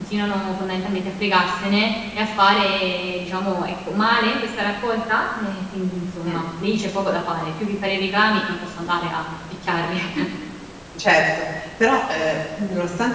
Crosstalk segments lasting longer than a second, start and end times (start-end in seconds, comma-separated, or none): none